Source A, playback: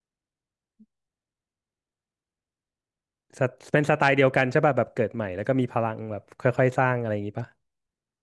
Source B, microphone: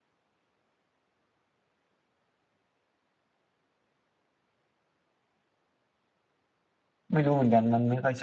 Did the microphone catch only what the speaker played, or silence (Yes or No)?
No